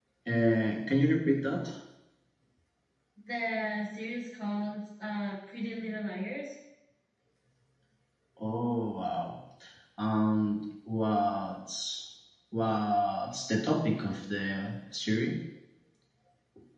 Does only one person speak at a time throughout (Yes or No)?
Yes